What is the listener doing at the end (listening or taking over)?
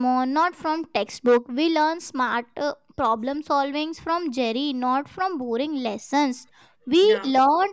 listening